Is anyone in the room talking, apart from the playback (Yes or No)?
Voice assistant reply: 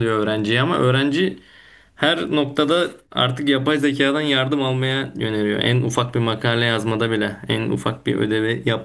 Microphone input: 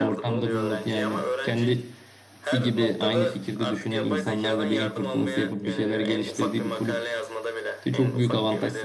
Yes